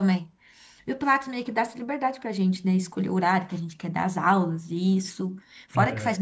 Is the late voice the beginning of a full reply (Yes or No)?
No